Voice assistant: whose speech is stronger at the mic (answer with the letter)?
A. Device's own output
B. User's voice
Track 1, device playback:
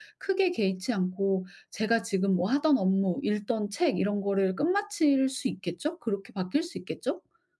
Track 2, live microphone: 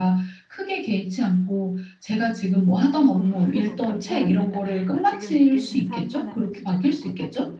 A